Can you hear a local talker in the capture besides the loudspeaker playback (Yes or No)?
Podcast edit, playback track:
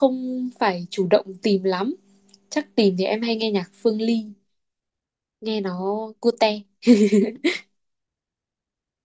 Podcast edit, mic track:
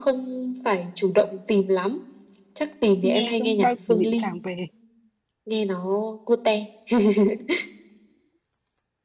Yes